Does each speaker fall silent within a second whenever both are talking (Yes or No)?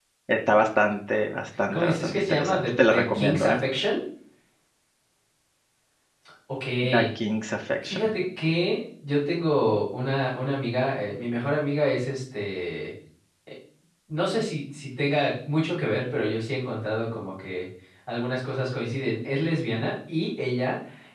No